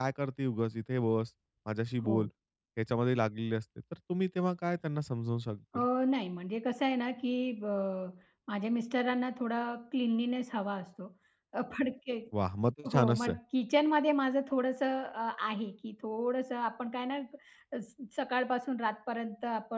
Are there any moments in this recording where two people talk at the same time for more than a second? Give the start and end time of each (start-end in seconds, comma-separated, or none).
none